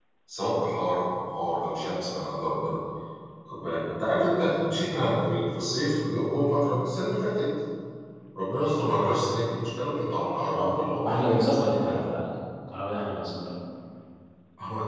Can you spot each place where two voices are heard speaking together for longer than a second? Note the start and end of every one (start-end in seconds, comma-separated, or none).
10.5-12.0